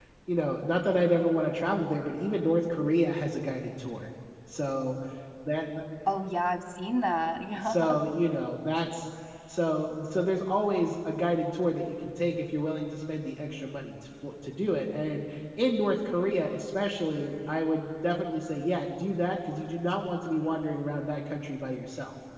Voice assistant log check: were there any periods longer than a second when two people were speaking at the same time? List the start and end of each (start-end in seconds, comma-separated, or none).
none